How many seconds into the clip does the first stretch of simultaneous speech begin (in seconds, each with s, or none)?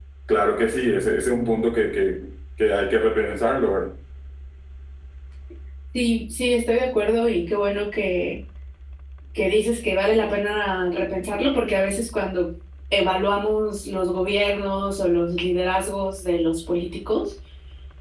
none